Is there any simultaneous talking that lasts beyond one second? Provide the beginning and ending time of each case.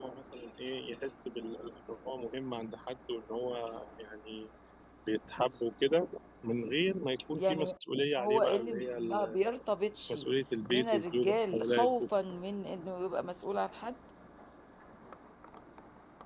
8.2-9.4, 10.7-11.9

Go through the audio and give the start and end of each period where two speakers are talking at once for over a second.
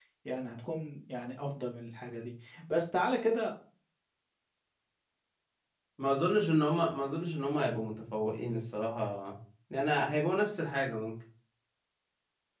none

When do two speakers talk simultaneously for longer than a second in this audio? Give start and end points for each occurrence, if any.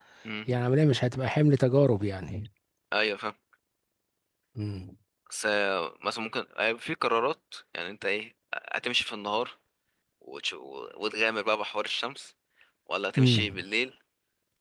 none

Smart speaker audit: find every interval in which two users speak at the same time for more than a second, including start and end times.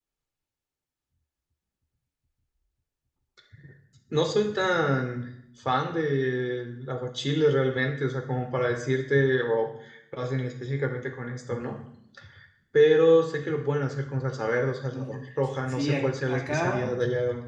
15.7-16.9

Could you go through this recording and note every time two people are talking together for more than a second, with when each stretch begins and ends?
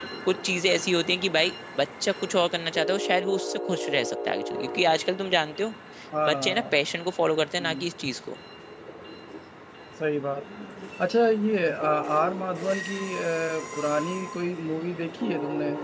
none

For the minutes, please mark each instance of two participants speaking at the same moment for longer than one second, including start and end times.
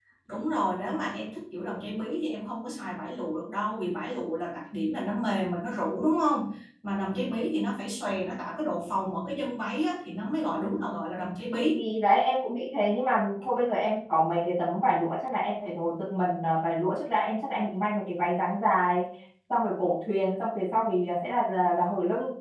none

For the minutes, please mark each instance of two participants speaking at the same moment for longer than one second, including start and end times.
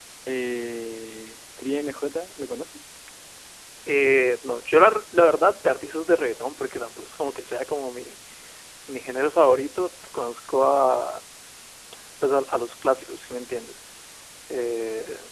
none

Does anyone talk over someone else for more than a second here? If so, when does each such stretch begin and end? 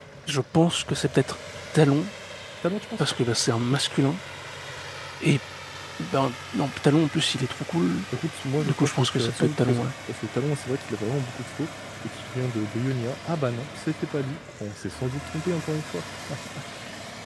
8.6-9.9

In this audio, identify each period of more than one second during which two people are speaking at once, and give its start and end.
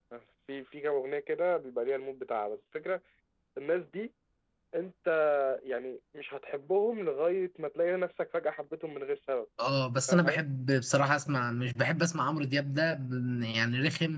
none

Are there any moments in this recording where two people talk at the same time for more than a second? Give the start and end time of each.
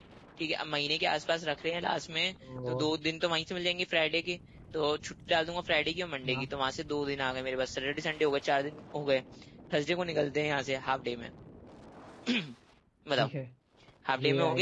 none

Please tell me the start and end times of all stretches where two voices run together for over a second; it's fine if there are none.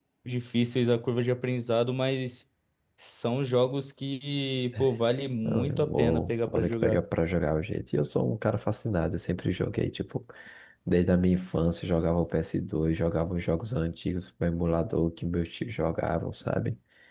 5.4-7.0

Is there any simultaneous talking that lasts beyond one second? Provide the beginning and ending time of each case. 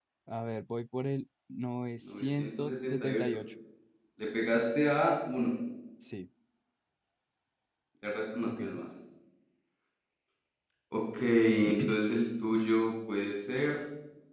2.0-3.2

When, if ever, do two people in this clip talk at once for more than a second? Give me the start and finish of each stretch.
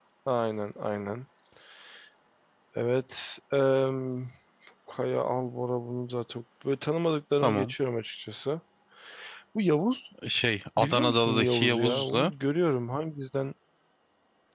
10.8-12.3

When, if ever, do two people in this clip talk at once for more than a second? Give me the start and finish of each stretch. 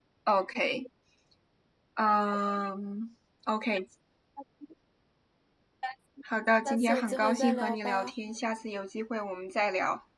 6.7-8.1

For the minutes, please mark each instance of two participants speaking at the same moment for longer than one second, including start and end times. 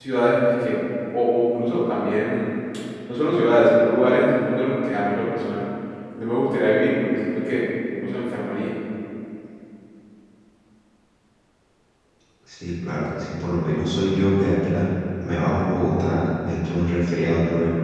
none

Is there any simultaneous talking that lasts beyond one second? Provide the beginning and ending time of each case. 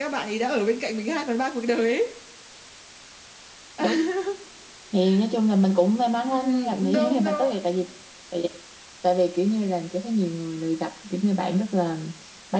6.2-7.4

